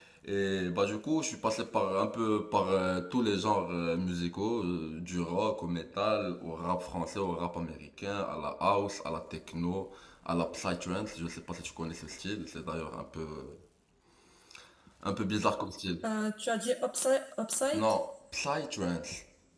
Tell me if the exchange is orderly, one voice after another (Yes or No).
Yes